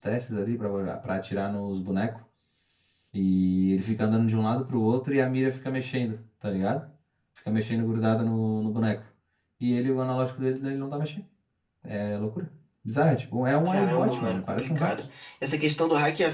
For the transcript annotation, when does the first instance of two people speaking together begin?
13.6 s

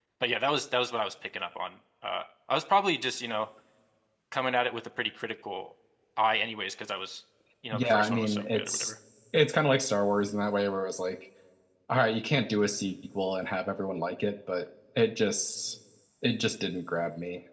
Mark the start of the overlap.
7.7 s

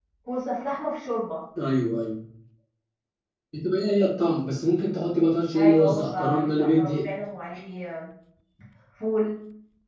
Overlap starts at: 5.5 s

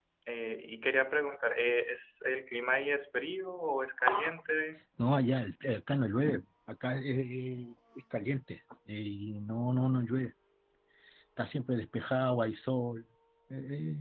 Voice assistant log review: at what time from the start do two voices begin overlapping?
none

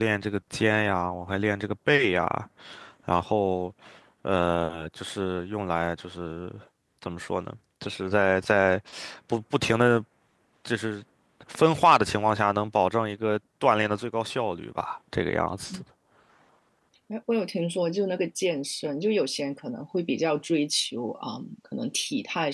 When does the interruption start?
none

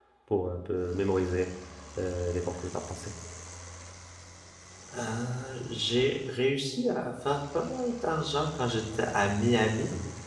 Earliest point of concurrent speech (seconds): none

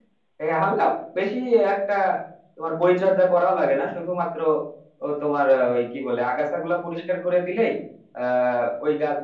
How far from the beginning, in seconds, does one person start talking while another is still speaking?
none

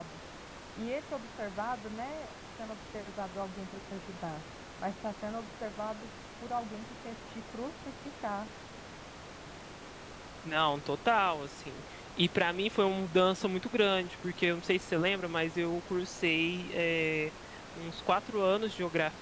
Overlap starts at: none

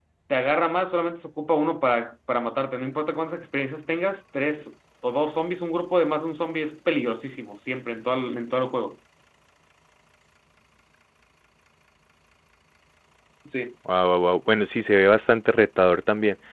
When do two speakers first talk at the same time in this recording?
none

